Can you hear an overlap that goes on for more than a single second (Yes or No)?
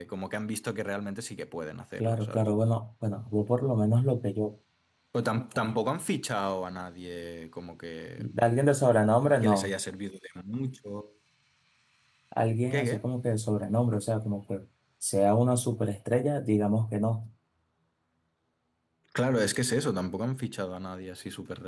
No